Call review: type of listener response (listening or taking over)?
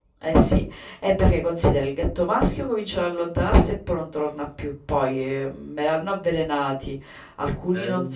listening